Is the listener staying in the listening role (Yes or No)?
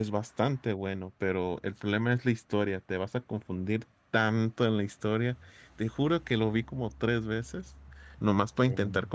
Yes